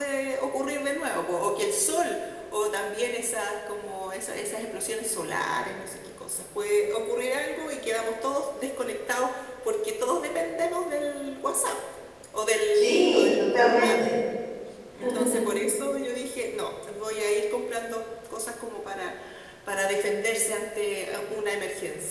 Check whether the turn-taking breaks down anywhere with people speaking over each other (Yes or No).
Yes